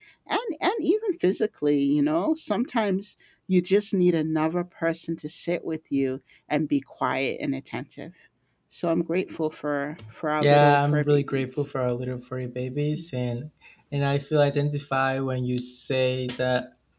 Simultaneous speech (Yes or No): Yes